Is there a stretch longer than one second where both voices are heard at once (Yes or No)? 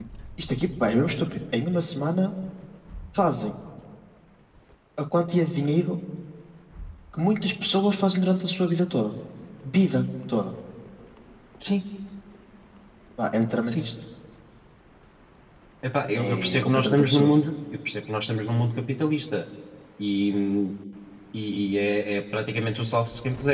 Yes